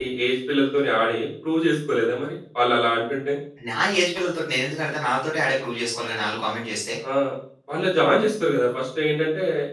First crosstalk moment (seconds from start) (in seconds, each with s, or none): none